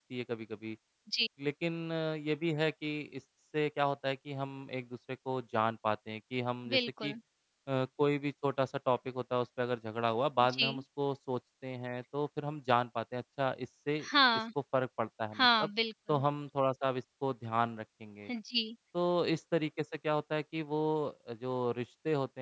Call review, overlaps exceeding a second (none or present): none